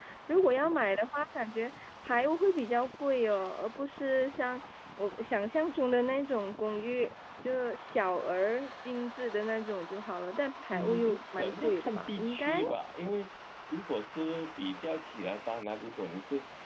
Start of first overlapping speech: 11 s

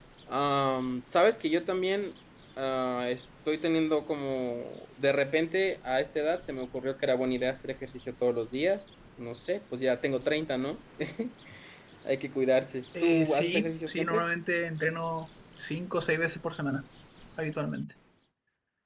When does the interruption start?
13 s

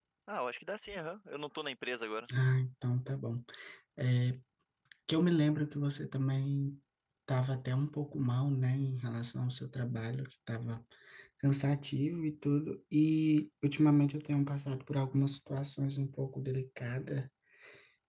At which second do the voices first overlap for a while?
none

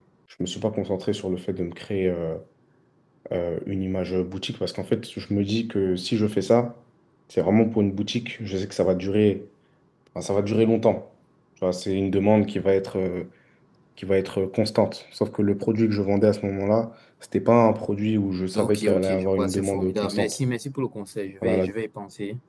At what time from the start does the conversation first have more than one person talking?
19 s

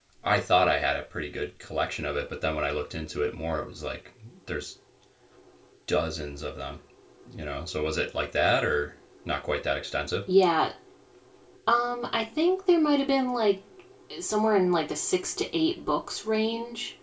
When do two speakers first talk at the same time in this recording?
none

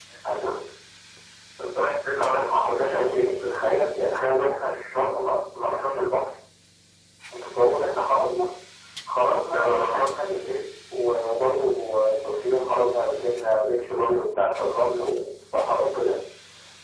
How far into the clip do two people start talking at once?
2 s

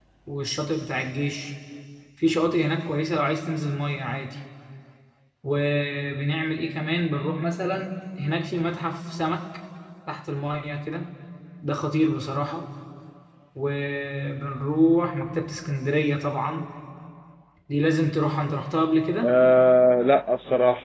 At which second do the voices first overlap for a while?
none

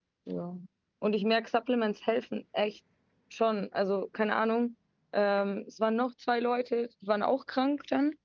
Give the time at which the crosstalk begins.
none

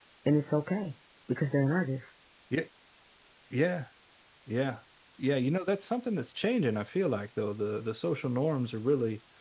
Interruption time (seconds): none

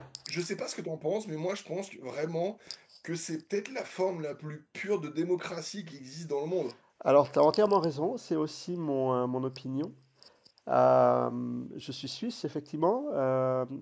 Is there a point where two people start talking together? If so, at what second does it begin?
none

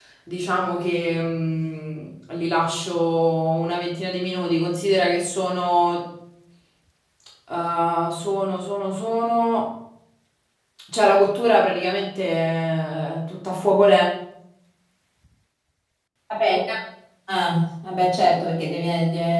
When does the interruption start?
none

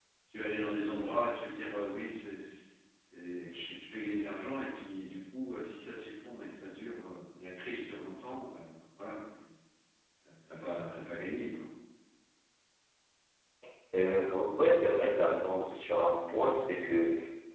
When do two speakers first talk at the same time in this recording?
none

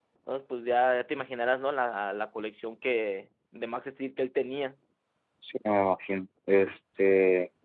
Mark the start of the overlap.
none

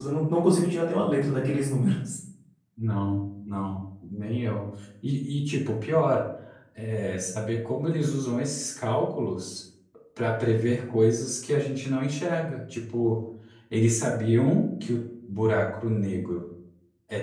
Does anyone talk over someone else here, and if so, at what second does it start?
none

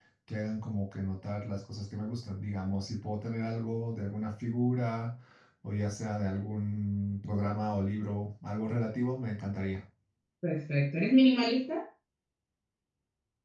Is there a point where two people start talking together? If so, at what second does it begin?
none

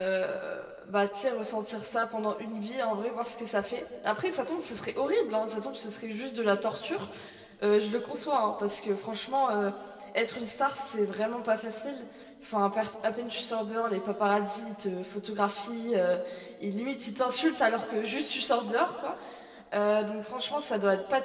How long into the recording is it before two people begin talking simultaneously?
none

